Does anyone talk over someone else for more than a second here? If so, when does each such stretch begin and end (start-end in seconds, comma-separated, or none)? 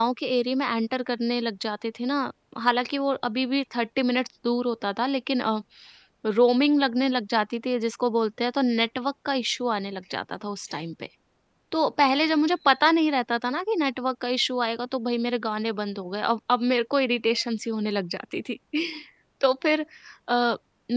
none